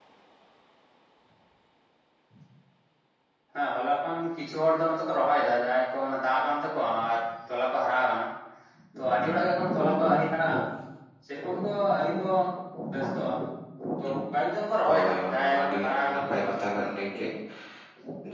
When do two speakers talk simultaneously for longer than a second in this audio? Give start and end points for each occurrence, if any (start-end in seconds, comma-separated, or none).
14.8-16.6